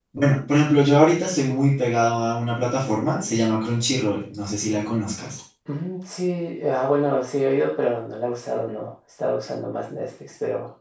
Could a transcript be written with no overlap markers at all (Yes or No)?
Yes